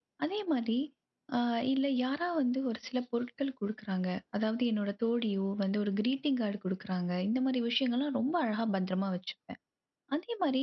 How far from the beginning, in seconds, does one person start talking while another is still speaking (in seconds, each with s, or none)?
none